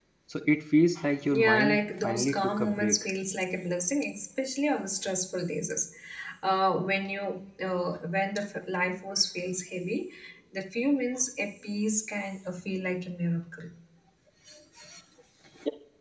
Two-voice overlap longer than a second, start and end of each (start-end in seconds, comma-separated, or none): 1.3-3.0